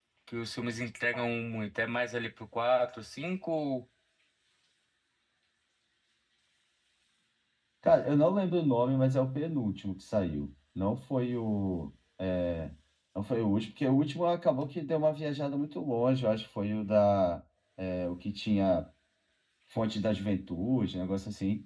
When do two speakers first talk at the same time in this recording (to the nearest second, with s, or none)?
none